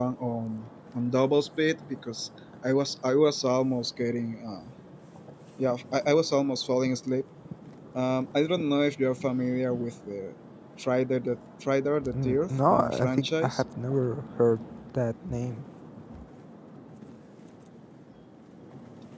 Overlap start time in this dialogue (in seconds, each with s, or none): 12.0 s